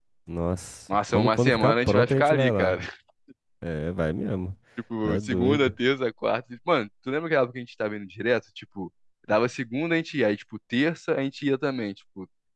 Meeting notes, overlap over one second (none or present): present